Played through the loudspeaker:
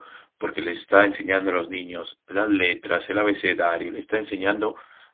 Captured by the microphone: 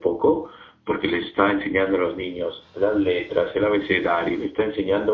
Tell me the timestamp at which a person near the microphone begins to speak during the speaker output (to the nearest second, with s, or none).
none